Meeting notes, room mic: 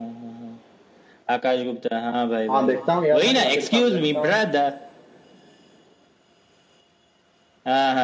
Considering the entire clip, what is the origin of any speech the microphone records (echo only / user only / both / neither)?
both